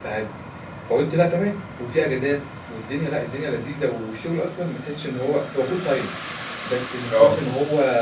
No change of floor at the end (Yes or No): Yes